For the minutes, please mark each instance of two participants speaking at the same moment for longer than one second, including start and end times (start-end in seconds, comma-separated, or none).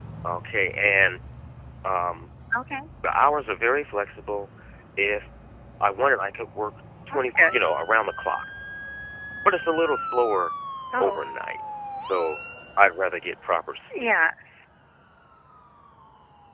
none